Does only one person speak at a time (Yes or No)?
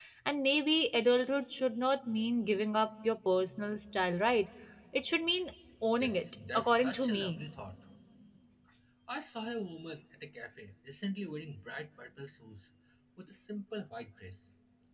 No